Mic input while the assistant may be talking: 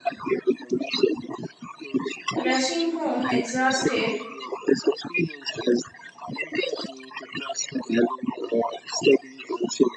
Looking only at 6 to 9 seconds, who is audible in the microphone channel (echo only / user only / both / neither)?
echo only